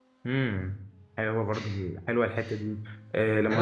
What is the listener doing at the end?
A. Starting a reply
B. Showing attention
B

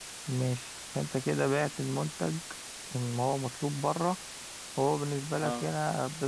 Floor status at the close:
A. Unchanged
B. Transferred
A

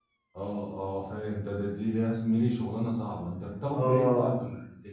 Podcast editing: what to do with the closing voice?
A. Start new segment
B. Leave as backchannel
A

